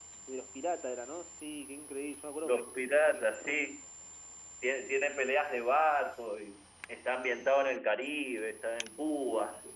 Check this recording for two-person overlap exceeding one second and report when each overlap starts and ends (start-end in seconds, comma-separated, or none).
2.4-3.8